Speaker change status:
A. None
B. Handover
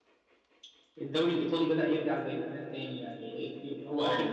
A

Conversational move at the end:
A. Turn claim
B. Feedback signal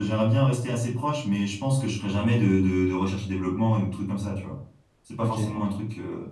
B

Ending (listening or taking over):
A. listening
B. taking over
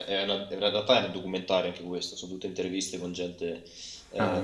A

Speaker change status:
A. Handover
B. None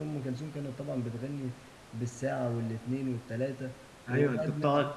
A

